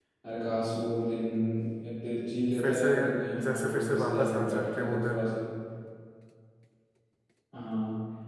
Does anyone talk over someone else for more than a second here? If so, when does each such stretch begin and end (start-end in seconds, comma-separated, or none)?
3.4-5.3